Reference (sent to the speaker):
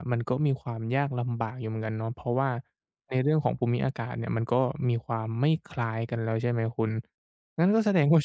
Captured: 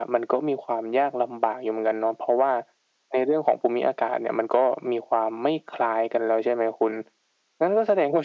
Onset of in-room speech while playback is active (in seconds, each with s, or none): none